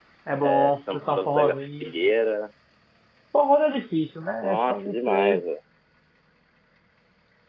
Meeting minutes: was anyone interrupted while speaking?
Yes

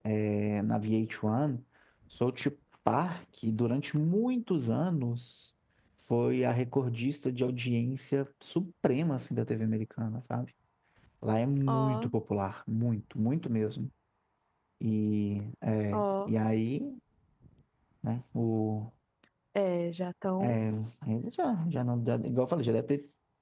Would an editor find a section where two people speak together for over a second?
No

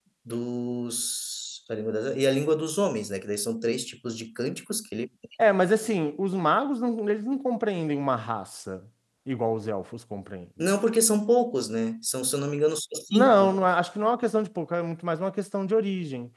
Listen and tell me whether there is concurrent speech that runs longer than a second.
No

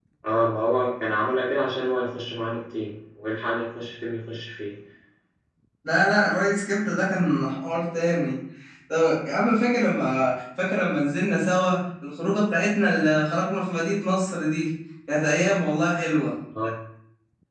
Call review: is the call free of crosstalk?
Yes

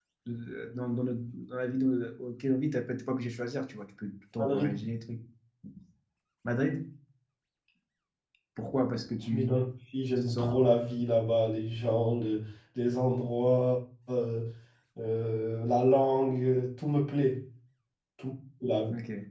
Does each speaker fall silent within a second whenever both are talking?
Yes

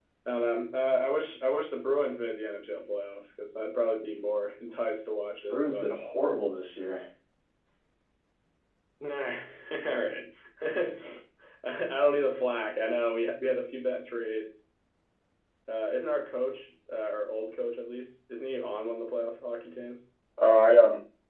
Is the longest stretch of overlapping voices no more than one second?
Yes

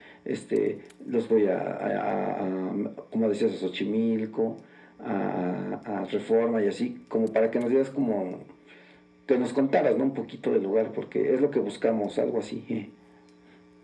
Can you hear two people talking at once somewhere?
No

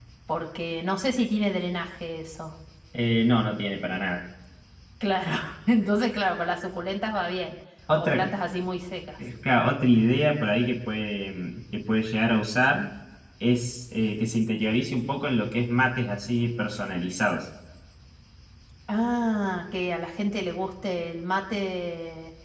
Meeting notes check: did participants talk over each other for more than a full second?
No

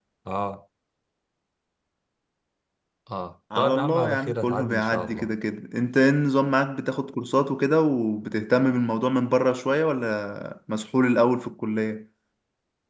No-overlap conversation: No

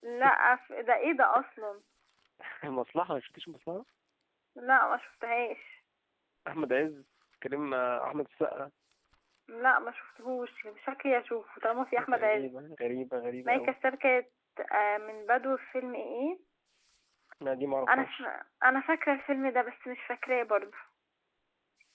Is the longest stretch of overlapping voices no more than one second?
Yes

